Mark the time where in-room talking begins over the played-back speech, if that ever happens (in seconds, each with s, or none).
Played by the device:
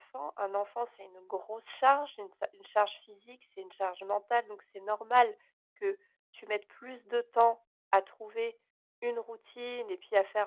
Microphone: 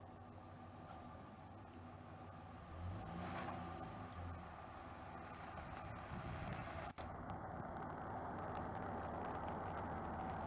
none